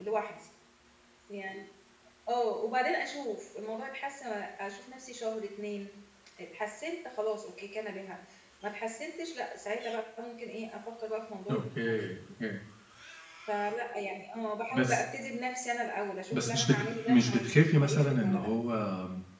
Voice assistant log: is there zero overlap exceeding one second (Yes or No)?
No